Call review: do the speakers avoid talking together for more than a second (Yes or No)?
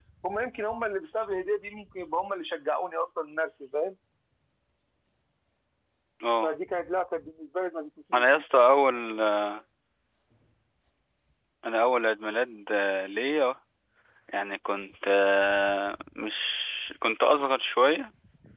Yes